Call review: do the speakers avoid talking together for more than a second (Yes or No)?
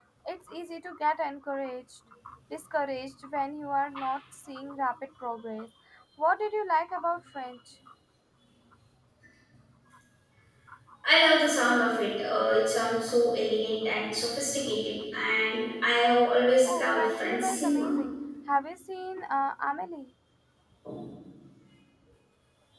No